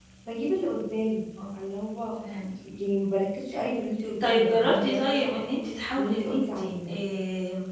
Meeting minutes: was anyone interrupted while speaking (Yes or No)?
Yes